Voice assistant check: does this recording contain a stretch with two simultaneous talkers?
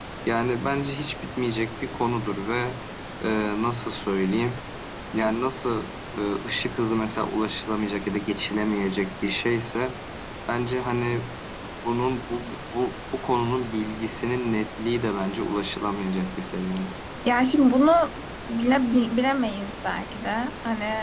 No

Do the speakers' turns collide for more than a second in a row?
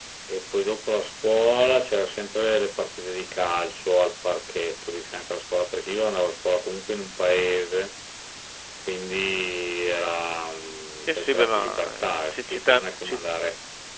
Yes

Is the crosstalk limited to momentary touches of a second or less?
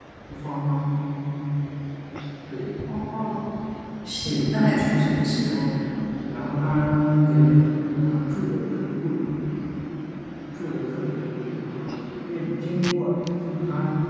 No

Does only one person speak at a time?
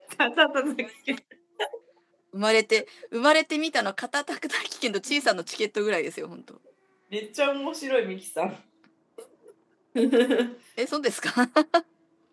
Yes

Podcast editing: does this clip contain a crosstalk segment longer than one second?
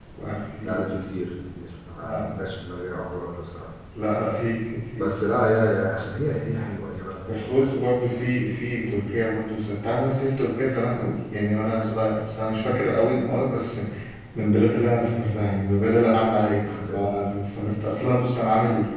No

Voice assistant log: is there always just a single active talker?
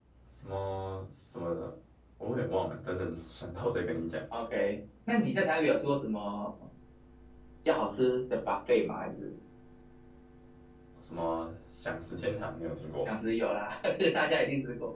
Yes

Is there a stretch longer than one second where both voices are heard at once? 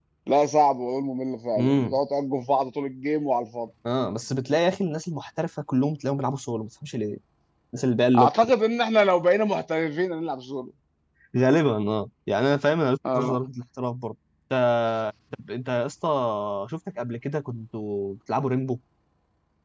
No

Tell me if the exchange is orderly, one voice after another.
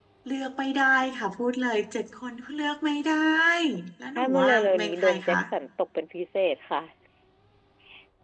No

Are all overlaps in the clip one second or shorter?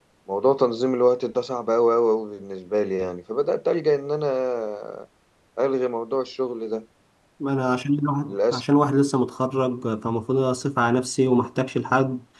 Yes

